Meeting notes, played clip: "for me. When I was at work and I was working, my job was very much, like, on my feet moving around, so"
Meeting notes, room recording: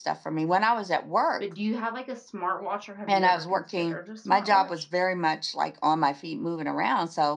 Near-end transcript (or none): but do you have, like, a smartwatch, or have you ever considered a smartwatch?